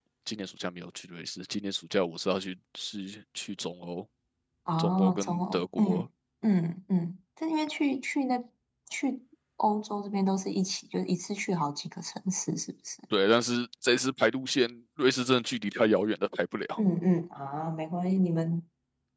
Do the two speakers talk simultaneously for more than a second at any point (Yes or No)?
Yes